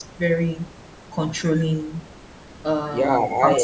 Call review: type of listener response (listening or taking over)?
taking over